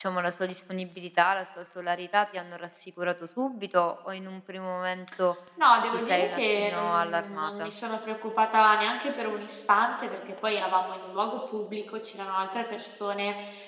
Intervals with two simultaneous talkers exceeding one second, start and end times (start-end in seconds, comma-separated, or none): 5.9-7.7